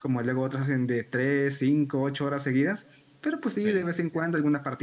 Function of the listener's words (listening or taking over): listening